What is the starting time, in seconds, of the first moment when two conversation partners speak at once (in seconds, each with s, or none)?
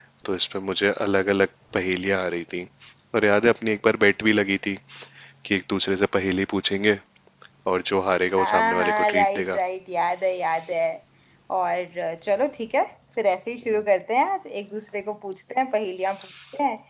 8.4 s